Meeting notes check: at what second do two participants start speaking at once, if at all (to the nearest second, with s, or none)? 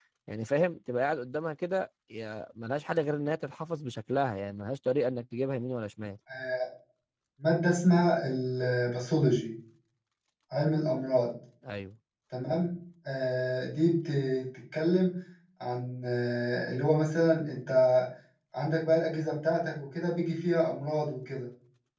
none